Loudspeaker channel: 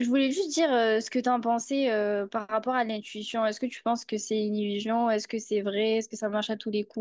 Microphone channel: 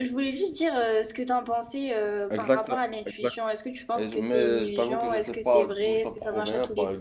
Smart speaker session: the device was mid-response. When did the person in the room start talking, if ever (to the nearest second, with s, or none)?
2 s